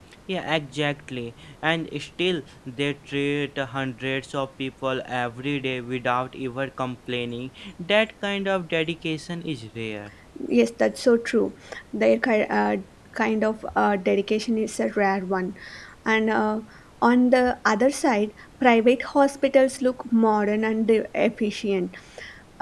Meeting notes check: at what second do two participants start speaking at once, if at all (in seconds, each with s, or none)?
none